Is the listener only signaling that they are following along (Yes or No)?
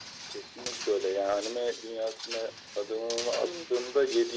Yes